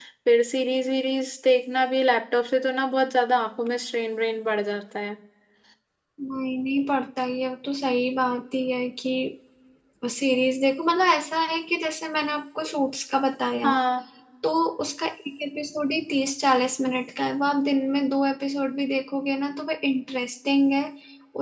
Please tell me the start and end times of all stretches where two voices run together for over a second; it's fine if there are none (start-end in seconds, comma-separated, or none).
none